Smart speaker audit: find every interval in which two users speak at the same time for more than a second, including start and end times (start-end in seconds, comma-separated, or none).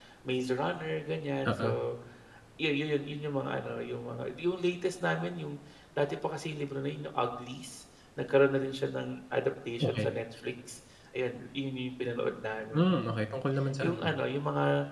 none